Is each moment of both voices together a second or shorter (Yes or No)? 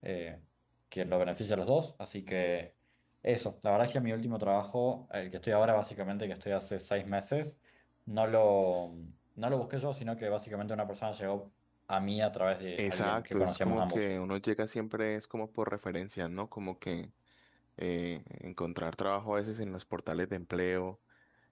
No